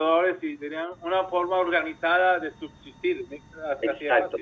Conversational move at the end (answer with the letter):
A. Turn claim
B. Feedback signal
A